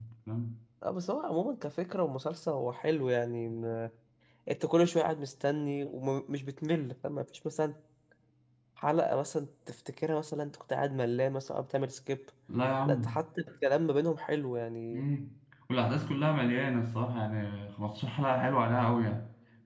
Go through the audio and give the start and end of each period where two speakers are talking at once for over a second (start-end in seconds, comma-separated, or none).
none